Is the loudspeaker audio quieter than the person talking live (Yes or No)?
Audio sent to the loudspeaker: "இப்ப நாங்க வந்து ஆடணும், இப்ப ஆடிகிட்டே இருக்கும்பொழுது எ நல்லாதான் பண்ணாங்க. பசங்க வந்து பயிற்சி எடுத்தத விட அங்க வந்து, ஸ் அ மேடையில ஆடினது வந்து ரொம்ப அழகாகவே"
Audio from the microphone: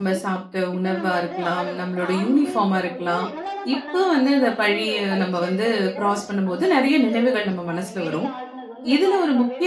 Yes